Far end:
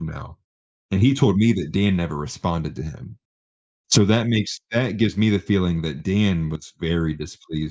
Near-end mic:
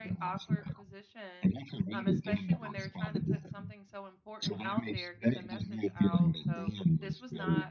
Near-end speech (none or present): present